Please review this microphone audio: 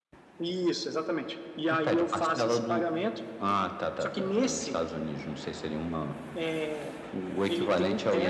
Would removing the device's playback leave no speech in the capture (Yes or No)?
Yes